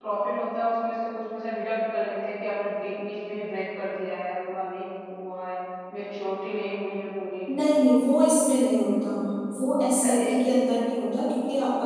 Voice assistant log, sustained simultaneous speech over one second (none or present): none